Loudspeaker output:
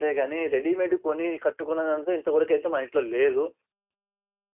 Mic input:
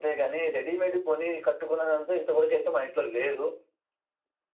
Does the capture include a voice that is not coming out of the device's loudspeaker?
No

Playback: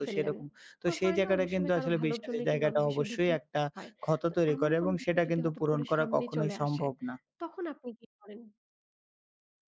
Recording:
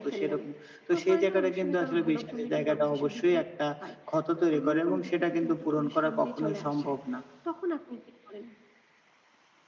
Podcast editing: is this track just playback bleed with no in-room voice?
Yes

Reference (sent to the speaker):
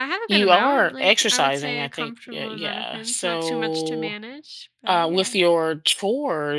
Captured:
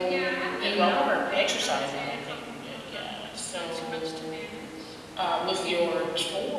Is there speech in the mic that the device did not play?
No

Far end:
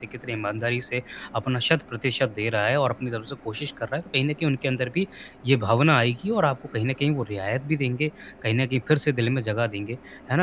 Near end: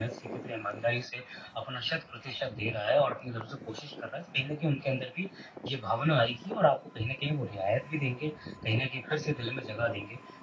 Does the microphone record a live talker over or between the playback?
No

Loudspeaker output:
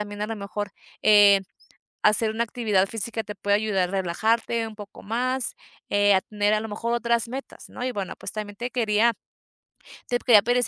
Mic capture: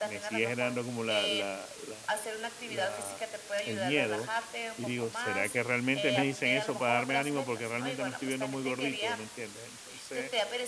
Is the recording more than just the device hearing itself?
Yes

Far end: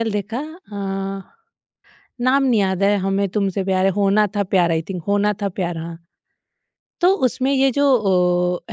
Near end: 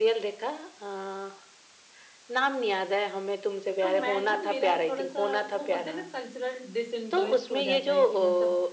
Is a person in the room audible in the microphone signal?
Yes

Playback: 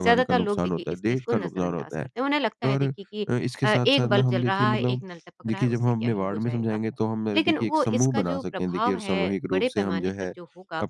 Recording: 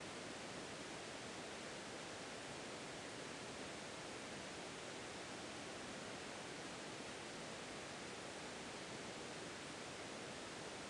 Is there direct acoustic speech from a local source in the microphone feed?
No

